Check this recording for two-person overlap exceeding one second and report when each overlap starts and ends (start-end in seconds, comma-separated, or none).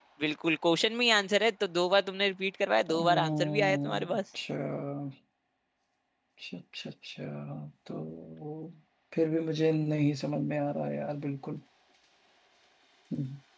2.9-4.2